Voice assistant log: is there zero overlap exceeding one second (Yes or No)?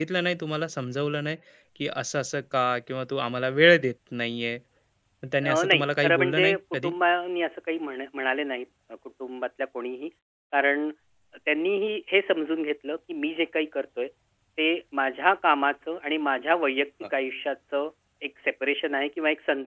No